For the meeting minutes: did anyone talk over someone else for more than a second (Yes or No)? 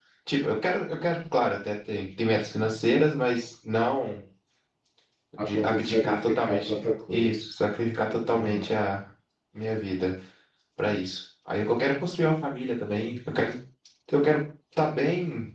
Yes